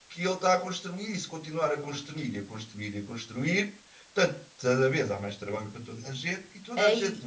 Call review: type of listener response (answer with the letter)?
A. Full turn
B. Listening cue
B